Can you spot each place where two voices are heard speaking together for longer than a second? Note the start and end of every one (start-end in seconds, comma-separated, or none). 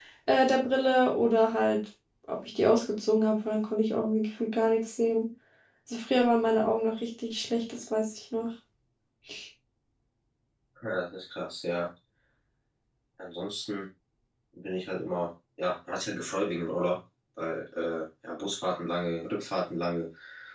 none